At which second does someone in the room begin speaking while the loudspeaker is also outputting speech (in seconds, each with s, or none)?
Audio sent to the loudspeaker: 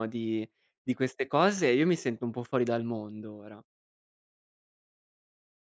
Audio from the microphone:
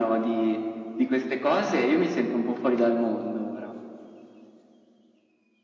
none